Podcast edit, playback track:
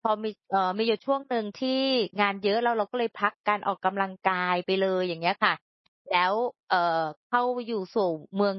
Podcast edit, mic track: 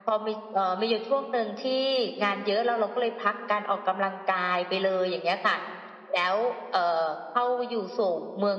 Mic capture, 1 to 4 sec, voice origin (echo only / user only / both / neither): echo only